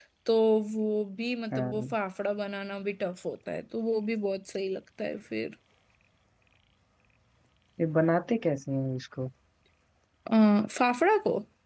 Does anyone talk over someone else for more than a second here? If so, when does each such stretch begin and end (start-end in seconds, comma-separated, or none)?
none